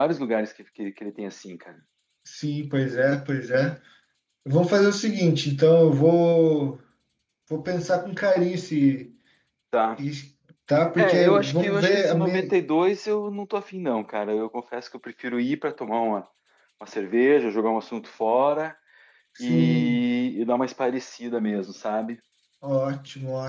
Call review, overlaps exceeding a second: present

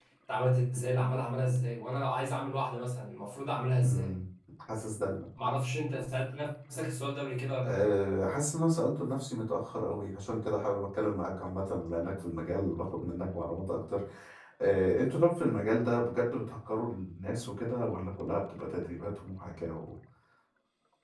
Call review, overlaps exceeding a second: none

